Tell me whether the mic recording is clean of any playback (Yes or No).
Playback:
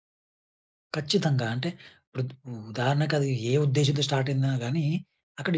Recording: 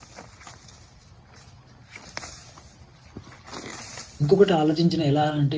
Yes